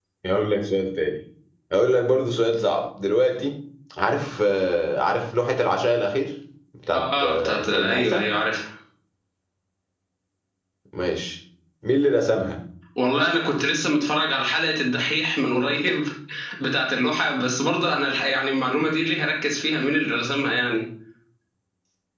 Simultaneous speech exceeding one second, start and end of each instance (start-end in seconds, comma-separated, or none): 6.9-8.2